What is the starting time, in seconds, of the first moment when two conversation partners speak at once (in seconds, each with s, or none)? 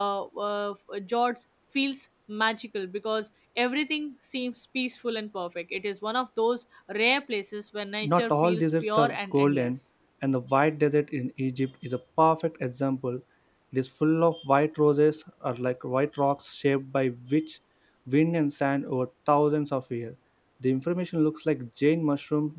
8.0 s